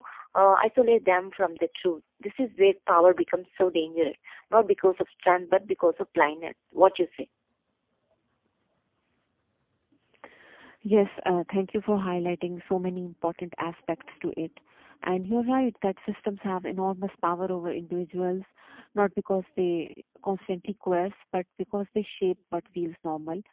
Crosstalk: none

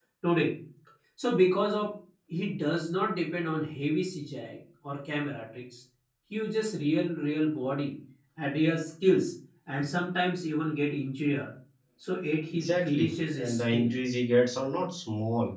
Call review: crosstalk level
present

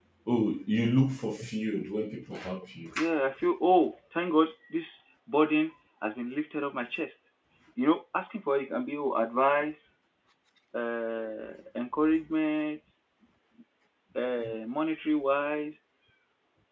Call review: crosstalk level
none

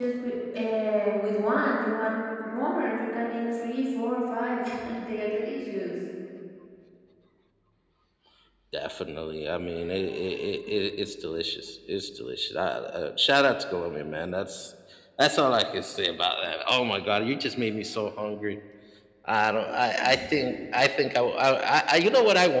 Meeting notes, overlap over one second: none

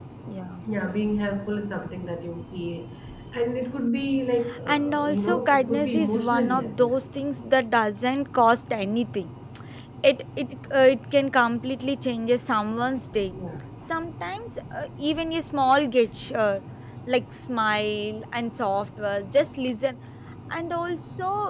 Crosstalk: present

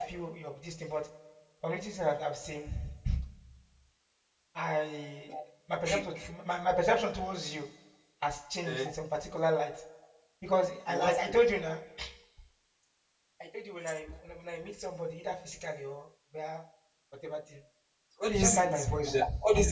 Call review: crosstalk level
present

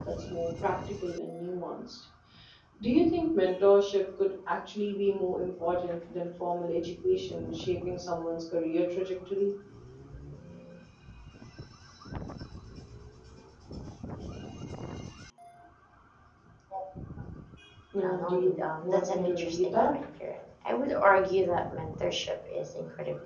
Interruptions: present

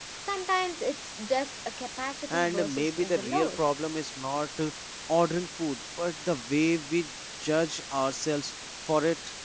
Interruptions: present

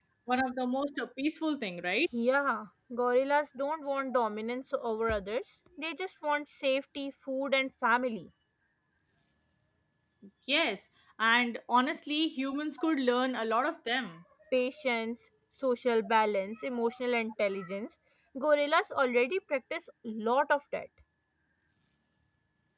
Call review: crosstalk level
none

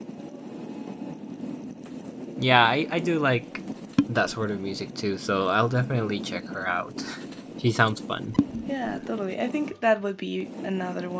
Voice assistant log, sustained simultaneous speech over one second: none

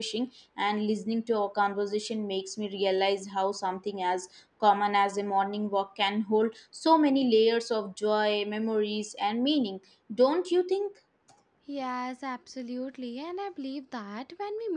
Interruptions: none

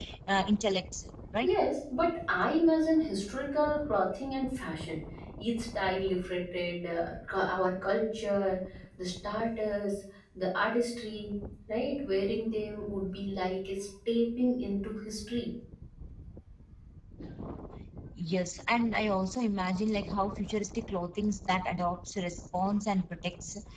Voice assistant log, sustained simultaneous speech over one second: none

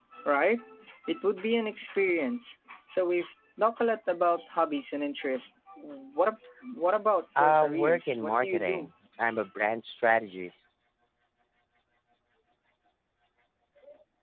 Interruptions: present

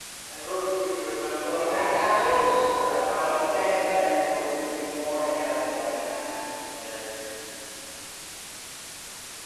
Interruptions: present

